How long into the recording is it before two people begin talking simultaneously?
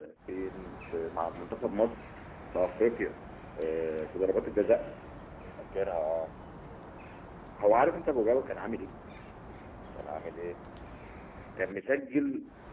none

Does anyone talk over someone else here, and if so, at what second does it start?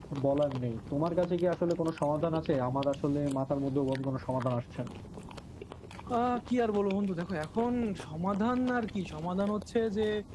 none

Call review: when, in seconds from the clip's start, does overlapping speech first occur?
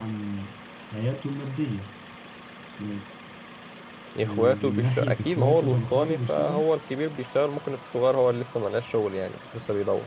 4.2 s

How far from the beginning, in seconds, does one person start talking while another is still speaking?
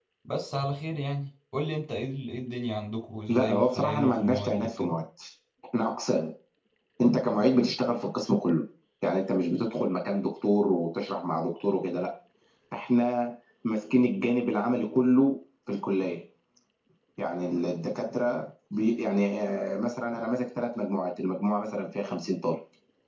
3.3 s

